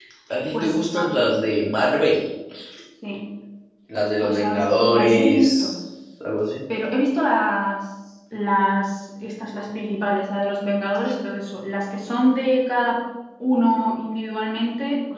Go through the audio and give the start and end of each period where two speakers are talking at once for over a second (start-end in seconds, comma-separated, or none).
4.2-5.7